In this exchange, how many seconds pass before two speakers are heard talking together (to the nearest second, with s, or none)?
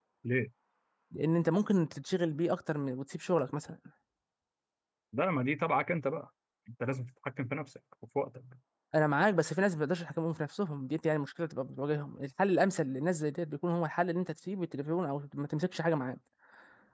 none